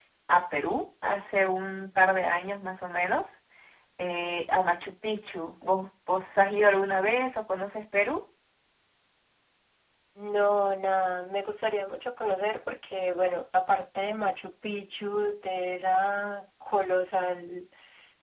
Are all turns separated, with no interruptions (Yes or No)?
Yes